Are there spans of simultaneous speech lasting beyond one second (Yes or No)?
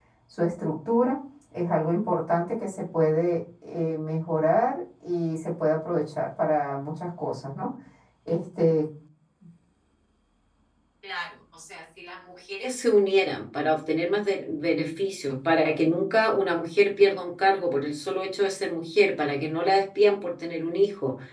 No